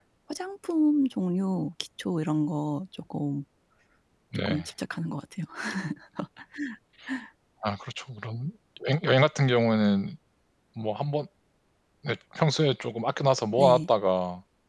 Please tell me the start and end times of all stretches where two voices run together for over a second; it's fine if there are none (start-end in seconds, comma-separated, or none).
none